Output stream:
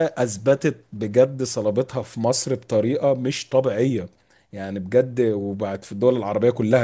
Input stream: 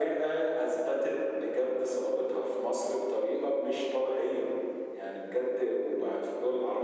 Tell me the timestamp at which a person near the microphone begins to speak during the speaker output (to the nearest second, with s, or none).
none